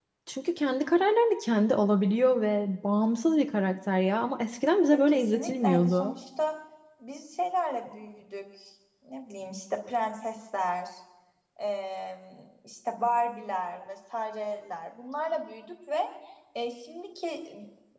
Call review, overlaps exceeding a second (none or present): present